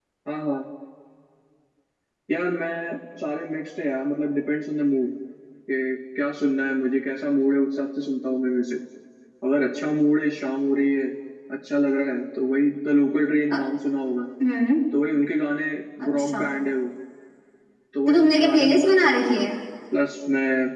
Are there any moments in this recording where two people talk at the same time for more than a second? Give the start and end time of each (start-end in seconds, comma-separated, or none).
18.1-19.4